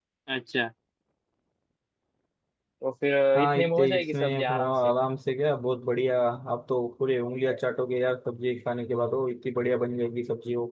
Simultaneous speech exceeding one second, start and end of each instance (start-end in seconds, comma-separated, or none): 3.4-4.7